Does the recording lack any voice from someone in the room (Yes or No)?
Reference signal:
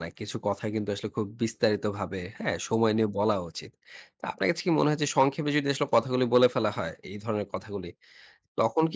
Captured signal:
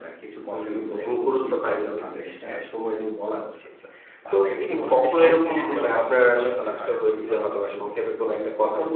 No